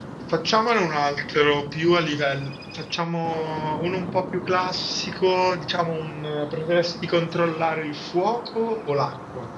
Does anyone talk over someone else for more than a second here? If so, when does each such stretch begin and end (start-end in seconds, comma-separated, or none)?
none